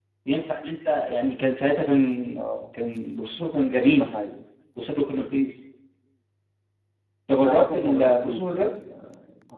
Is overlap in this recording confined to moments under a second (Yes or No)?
No